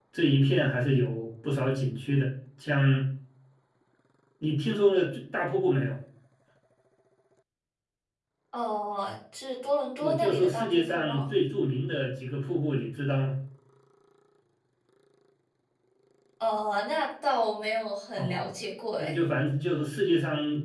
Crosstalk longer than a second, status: present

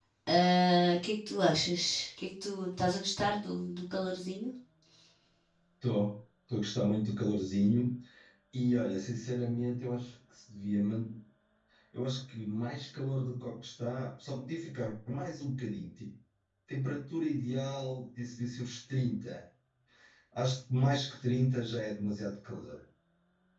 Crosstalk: none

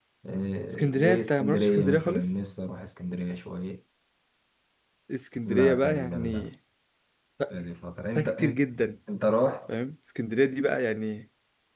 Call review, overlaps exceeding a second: present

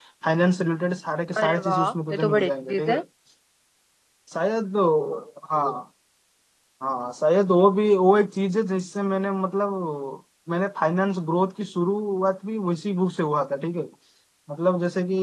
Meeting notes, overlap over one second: present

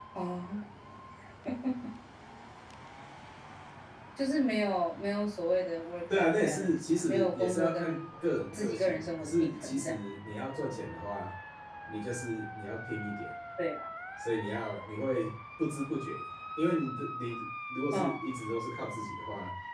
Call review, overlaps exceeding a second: present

